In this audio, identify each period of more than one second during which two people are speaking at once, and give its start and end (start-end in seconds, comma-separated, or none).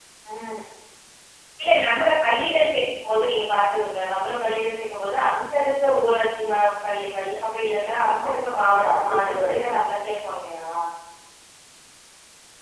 8.1-9.6